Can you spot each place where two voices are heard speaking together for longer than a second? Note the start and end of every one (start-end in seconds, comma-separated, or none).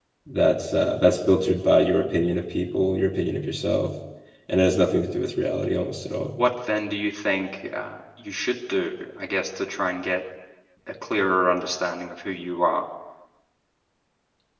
none